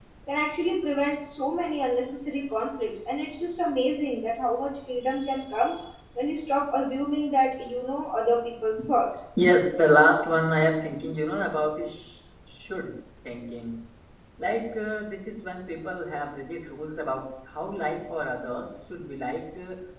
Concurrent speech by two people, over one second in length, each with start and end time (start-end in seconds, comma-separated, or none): none